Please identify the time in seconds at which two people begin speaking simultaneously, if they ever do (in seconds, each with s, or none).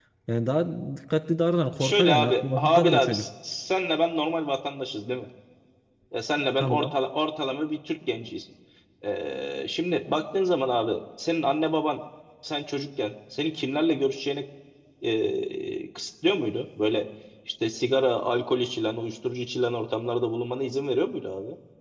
1.8 s